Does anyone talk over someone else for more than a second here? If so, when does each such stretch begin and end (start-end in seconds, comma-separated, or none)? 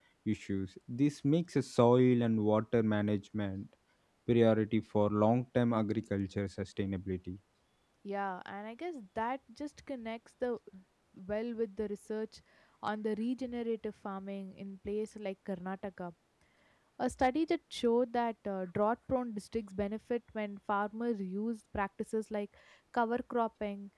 none